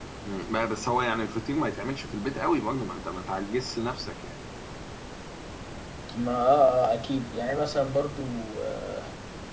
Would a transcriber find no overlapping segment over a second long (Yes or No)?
Yes